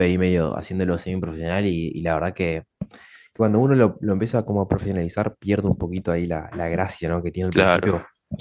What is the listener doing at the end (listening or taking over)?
listening